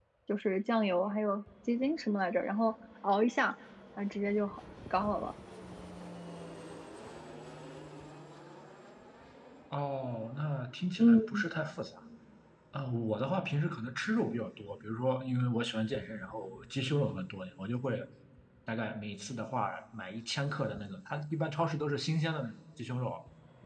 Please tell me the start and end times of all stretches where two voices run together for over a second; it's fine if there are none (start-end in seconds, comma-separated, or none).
none